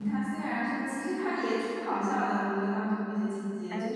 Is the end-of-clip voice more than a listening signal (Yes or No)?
No